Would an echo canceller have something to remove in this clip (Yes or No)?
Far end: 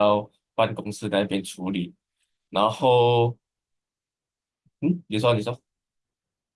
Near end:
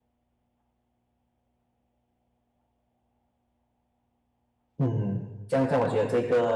No